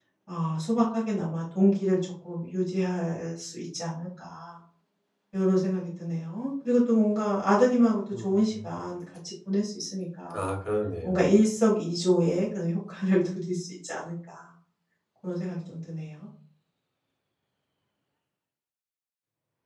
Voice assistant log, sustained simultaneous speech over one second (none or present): none